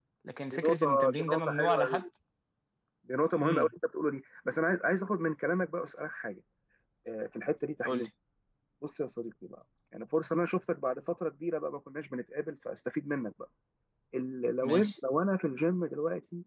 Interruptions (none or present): present